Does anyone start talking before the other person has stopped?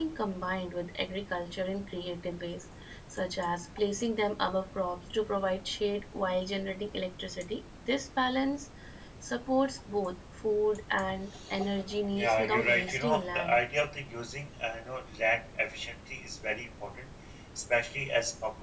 Yes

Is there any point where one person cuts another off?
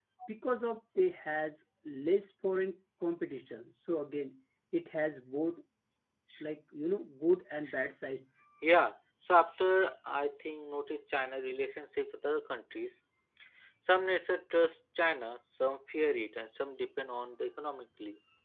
No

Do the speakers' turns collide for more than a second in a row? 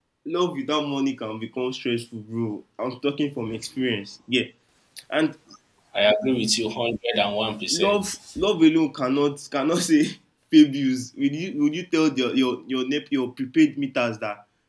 No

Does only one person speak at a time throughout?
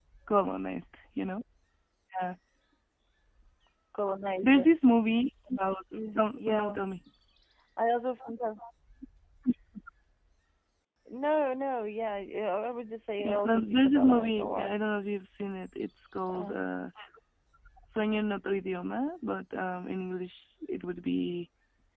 No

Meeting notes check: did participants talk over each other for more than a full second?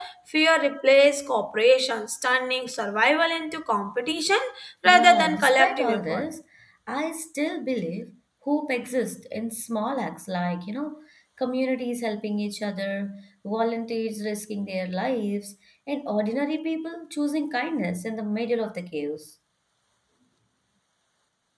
Yes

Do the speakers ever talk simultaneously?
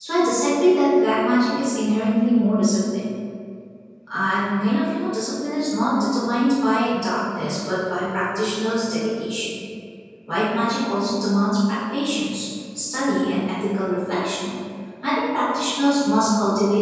No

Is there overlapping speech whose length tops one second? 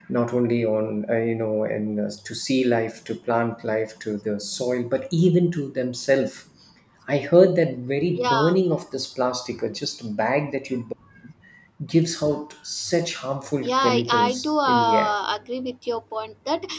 Yes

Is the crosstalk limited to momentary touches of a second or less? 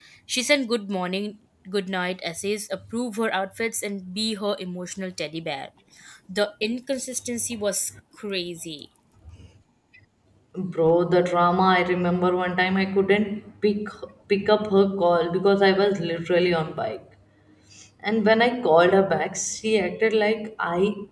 Yes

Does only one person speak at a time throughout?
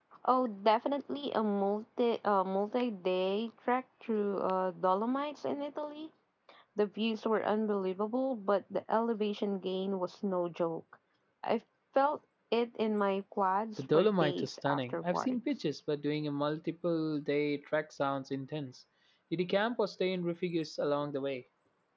No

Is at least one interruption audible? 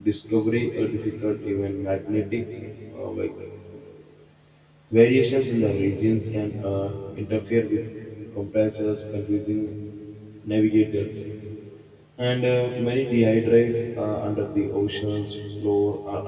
No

